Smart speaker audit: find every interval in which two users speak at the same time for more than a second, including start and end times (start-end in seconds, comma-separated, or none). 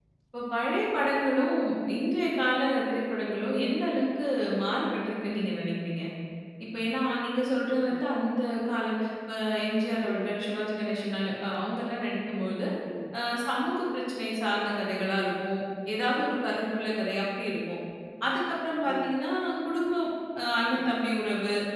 none